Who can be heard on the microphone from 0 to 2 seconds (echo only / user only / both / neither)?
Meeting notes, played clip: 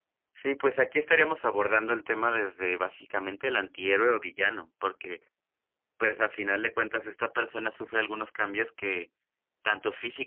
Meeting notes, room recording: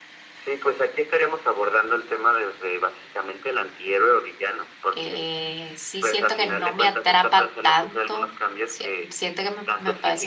echo only